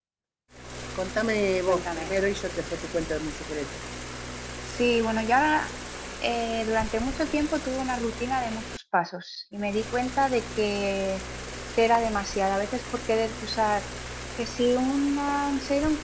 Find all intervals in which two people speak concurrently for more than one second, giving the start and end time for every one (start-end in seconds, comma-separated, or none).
none